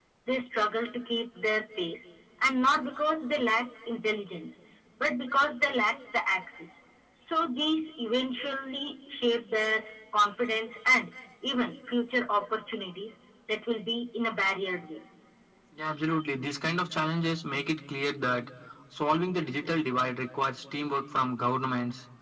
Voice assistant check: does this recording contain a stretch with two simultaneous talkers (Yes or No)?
No